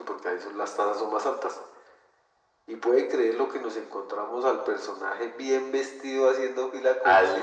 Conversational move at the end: listening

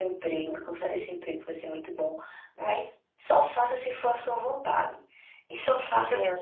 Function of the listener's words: listening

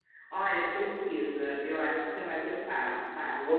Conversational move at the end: listening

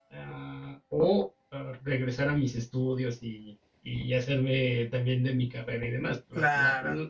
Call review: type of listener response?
listening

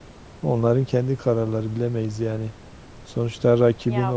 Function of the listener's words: listening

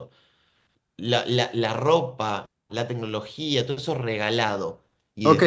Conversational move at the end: taking over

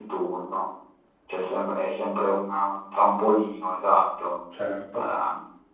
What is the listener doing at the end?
listening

